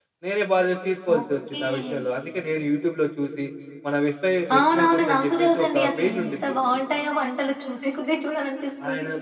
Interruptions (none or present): present